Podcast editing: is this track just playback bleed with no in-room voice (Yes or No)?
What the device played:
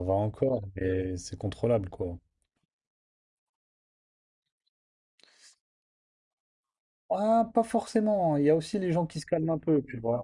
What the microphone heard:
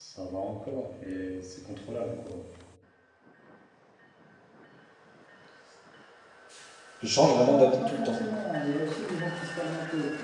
No